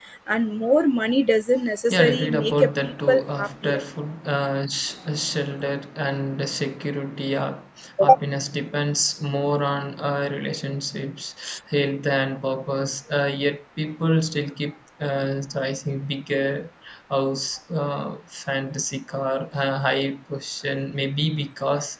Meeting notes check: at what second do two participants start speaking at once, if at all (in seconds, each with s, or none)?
1.9 s